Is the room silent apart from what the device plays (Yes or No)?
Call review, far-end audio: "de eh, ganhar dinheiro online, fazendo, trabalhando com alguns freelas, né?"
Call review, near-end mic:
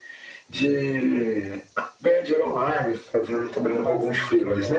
No